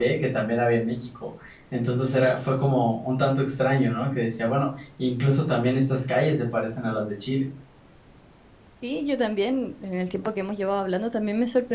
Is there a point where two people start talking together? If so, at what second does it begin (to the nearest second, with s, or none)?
none